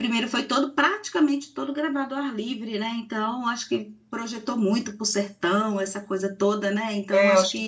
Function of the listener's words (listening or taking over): taking over